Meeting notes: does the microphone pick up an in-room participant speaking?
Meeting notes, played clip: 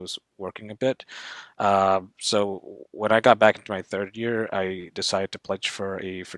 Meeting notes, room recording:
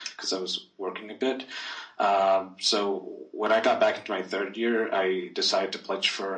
No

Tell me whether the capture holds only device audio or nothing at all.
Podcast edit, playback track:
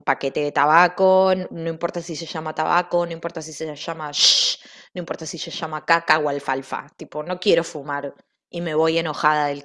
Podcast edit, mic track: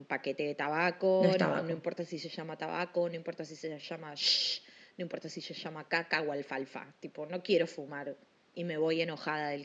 No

